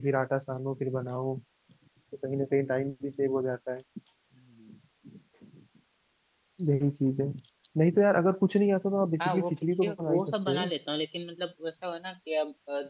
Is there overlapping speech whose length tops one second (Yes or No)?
Yes